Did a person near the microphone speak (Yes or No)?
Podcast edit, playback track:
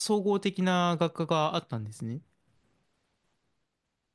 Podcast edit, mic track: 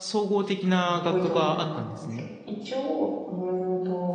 Yes